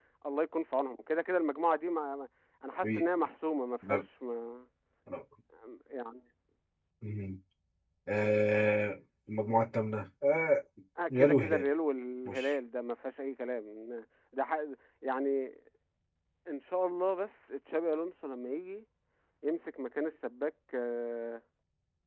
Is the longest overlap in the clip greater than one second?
No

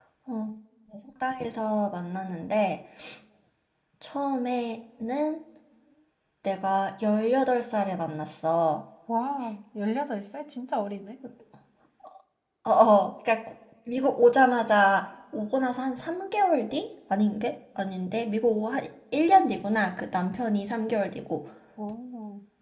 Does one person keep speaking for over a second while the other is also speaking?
No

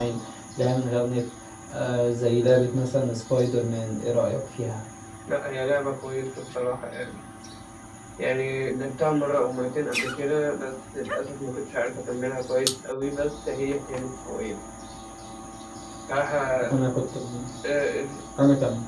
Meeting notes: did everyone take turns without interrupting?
Yes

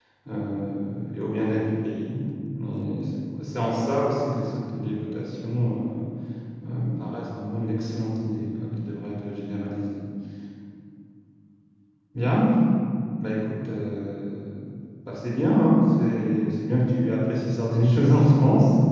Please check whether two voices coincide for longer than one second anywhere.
No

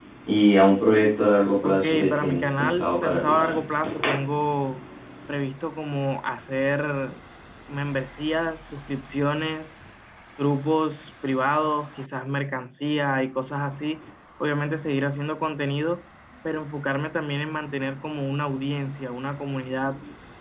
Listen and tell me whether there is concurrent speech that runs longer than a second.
Yes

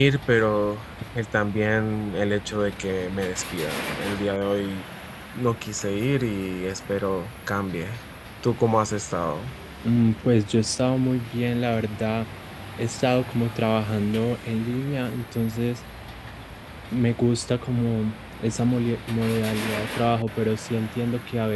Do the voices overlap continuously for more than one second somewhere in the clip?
No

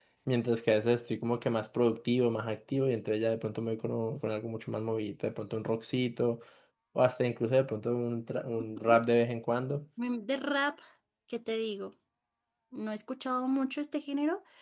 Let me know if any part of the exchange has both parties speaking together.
No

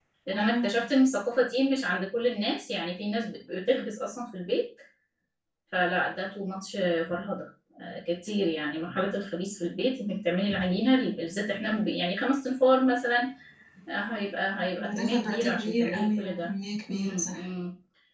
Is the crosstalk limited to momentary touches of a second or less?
No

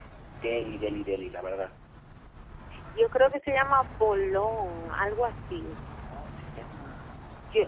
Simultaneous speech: No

